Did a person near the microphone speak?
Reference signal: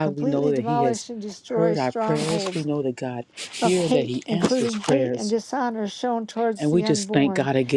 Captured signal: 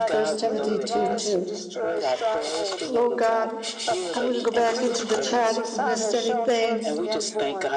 Yes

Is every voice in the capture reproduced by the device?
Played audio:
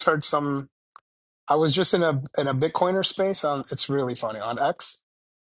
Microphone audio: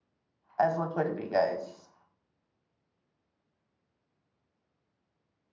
No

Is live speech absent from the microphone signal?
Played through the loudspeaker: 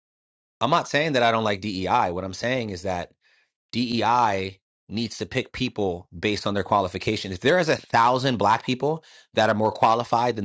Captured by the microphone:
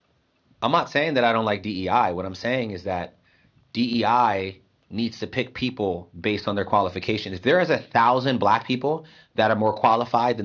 Yes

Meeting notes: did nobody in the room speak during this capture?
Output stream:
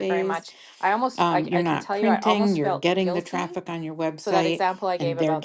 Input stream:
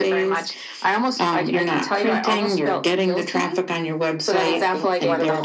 No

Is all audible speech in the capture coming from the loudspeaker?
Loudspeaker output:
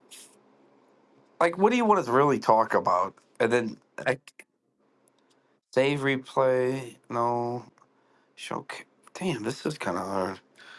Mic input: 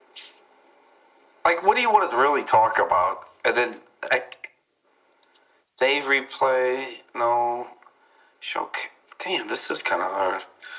Yes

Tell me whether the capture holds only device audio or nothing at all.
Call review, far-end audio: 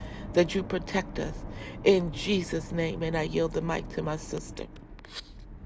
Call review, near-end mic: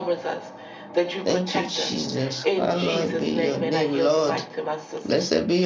No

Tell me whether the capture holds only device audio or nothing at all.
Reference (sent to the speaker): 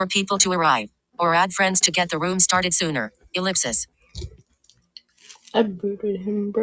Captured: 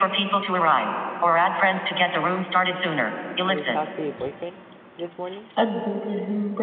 No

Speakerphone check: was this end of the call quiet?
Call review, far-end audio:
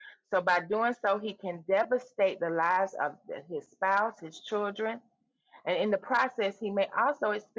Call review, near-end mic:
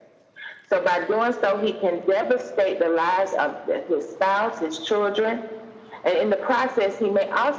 Yes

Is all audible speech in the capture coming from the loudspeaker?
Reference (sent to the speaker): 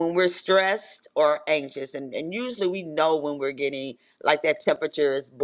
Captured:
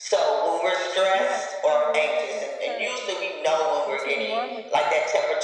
No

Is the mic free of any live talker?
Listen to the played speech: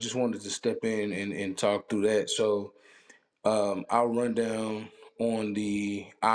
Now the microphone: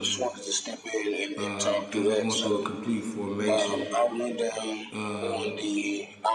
No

